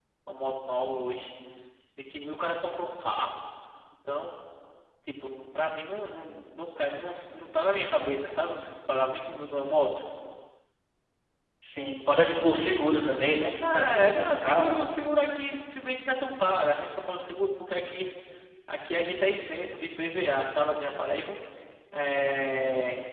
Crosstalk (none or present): present